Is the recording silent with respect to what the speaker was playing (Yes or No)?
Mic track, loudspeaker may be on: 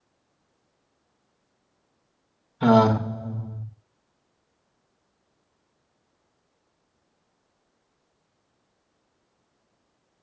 Yes